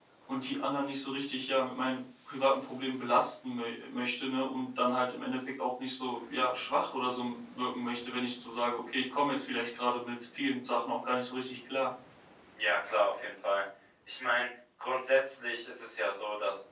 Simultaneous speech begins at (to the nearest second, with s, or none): none